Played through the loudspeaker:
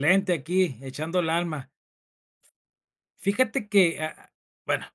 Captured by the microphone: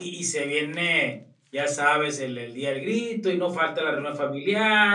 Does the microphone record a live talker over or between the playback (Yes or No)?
Yes